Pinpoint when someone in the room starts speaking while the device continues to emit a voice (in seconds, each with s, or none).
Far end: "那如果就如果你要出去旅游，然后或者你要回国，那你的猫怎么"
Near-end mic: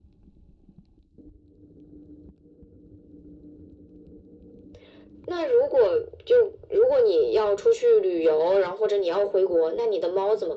none